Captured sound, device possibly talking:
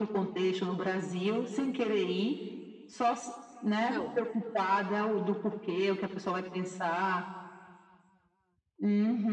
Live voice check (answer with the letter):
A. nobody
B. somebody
B